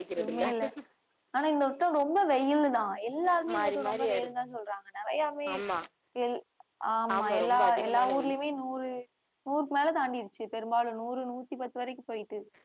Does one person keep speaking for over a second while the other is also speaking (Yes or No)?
Yes